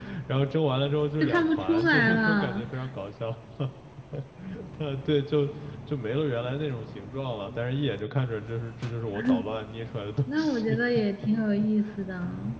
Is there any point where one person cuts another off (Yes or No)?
Yes